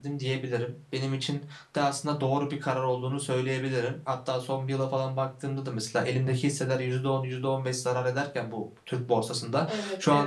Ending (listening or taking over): listening